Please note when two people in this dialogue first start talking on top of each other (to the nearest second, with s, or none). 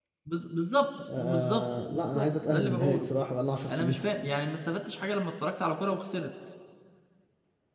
1 s